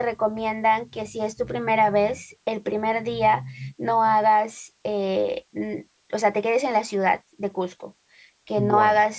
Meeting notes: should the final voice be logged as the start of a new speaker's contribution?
No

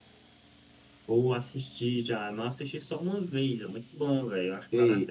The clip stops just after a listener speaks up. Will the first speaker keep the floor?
No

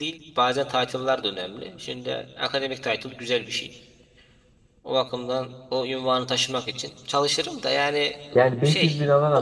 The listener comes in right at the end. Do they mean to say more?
Yes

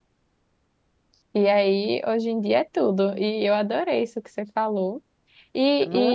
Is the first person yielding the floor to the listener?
No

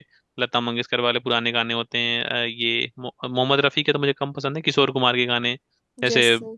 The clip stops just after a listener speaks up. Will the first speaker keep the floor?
Yes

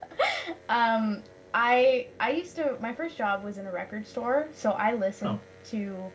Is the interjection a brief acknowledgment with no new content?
Yes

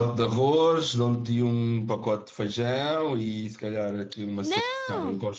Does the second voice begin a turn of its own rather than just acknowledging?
No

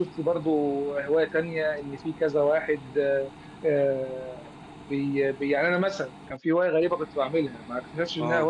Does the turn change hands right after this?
No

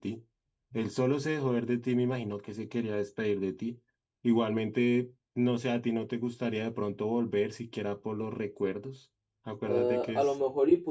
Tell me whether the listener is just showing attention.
No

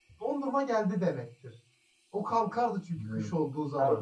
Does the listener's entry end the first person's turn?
Yes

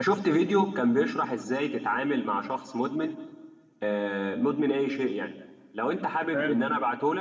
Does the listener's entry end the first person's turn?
No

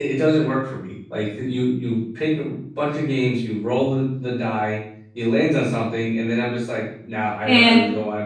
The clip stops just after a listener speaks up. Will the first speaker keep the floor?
Yes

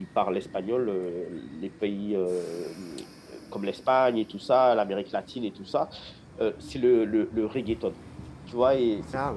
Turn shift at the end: No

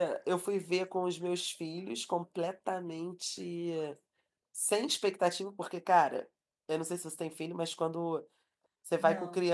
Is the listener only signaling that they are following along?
Yes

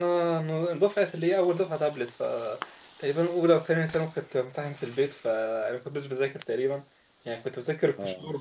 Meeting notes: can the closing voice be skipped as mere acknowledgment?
Yes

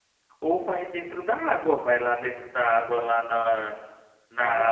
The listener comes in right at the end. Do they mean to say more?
No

